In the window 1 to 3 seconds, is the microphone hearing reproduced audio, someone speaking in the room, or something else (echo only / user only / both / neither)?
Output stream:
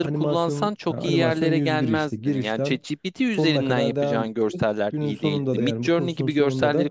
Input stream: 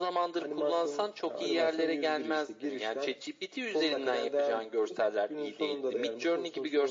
echo only